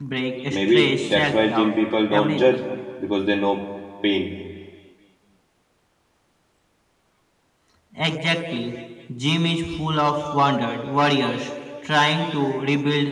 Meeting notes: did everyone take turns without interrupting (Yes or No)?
No